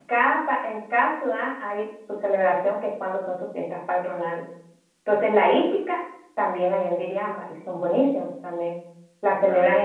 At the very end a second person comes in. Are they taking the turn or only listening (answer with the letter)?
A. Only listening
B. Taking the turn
A